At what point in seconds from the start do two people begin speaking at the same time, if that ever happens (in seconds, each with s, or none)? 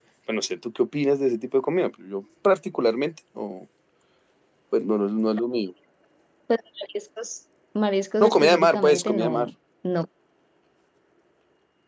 8.2 s